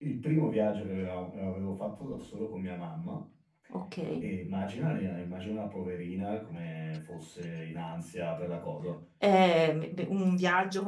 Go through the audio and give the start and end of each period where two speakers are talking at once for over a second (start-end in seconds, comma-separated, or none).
none